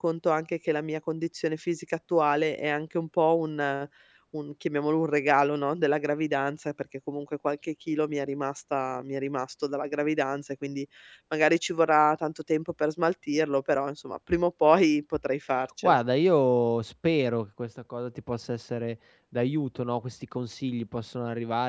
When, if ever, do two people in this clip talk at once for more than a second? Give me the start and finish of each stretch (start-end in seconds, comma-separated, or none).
none